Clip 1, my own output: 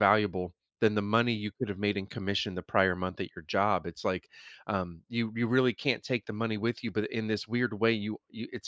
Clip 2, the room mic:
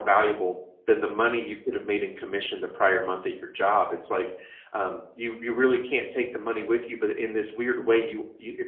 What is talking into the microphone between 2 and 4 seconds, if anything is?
echo only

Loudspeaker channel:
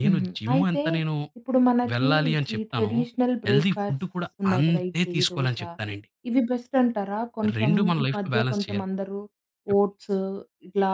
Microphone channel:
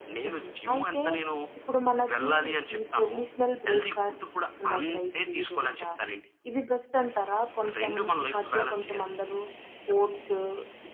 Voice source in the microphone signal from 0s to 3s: echo only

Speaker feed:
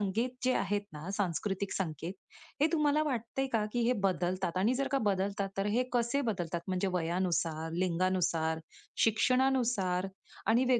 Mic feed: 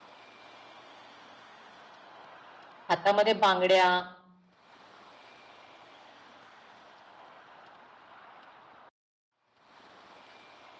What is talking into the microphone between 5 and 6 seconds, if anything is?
neither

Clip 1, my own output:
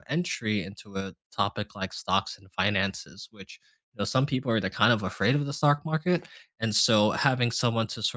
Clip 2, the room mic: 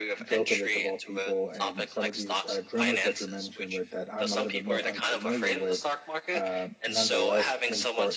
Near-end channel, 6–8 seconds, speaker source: both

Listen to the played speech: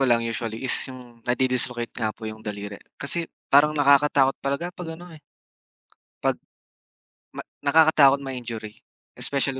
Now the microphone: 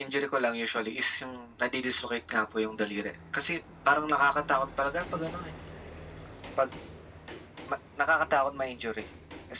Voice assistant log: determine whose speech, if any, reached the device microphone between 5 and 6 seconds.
echo only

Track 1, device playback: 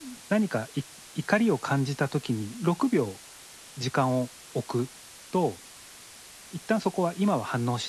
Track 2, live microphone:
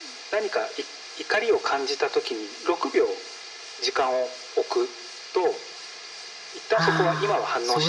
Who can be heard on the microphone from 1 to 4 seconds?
echo only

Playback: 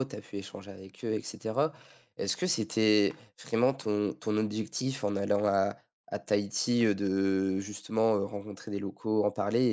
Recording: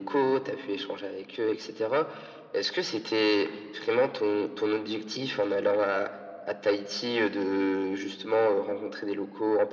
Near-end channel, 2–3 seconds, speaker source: echo only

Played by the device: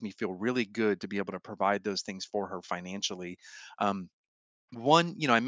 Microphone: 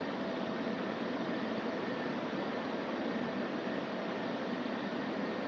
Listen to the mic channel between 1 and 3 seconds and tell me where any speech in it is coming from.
neither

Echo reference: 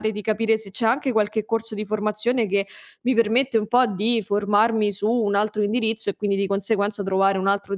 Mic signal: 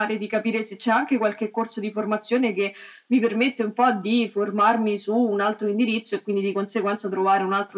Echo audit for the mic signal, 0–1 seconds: echo only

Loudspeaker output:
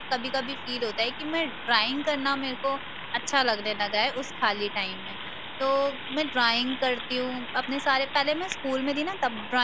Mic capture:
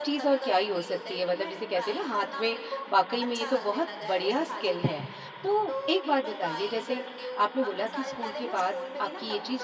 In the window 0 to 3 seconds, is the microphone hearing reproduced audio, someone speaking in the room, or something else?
both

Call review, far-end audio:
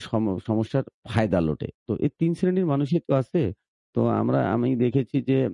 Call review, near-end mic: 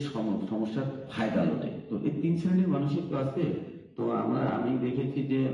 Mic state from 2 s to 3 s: echo only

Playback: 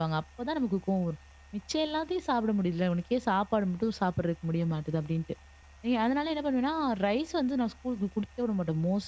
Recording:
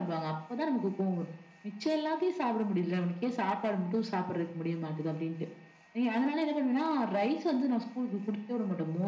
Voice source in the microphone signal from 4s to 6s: echo only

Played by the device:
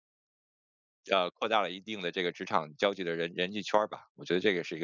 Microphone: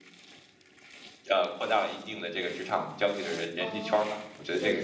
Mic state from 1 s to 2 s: echo only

